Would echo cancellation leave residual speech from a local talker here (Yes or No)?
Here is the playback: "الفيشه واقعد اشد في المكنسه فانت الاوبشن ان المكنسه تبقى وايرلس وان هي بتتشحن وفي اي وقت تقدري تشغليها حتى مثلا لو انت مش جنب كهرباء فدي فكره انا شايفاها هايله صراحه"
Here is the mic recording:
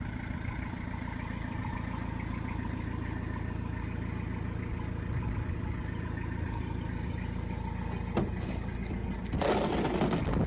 No